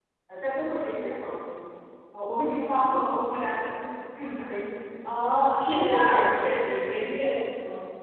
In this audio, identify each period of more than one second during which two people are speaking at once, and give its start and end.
5.7-7.1

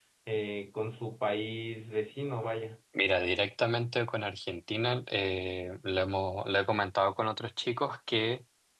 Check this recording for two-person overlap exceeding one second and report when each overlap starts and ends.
none

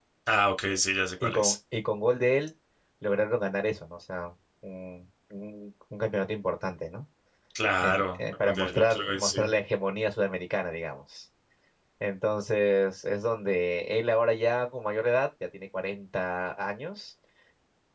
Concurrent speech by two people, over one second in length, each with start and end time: 7.8-9.4

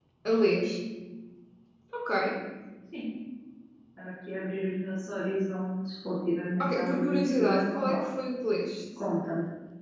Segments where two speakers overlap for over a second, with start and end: 6.6-8.0

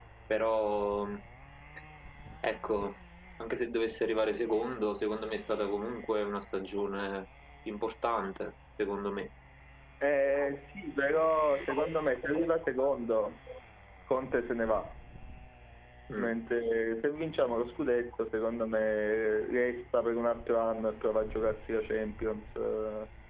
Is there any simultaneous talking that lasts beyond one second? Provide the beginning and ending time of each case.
none

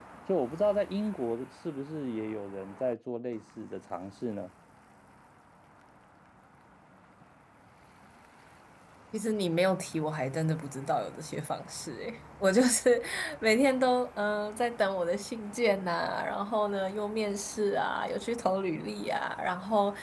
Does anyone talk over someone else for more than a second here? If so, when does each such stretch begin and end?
none

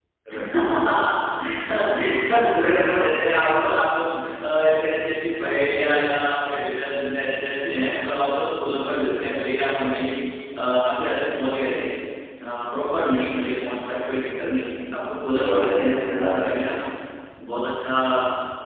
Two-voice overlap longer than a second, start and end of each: 15.3-16.8

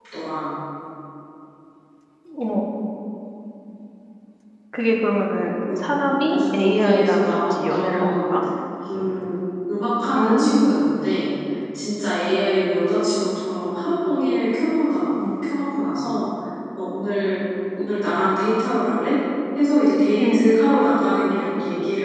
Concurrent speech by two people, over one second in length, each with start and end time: 6.3-8.3

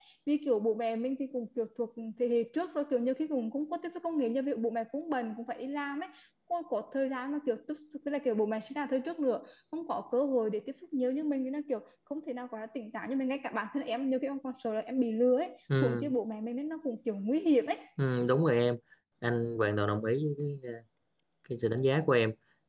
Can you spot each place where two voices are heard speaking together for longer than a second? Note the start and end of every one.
none

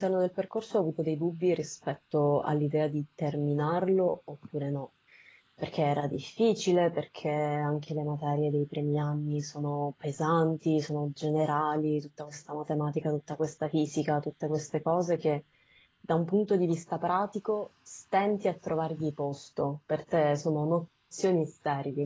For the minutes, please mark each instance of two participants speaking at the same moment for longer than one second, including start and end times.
none

